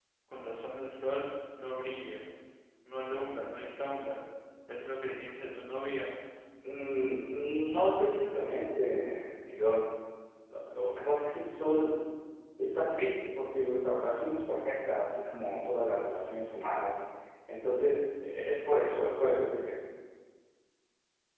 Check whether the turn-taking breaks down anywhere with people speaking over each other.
No

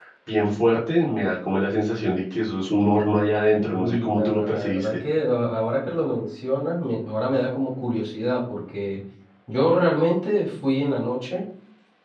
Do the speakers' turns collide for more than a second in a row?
Yes, from 3.5 s

